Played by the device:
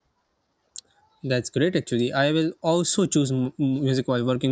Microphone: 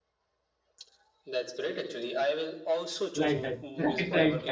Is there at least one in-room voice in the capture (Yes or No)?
Yes